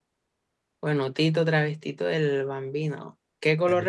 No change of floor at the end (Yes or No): Yes